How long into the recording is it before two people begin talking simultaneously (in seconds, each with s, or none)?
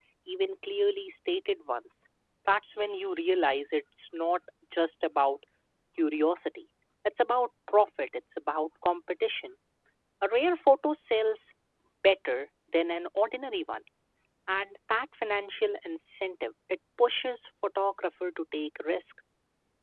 none